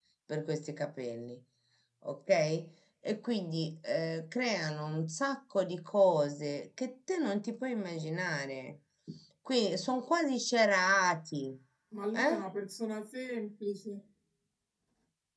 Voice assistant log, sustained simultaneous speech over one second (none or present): none